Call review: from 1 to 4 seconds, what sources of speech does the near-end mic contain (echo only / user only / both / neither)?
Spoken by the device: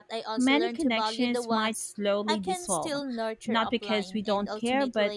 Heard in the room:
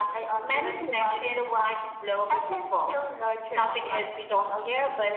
echo only